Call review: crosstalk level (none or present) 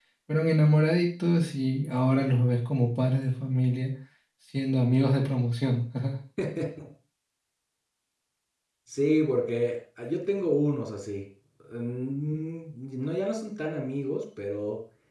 none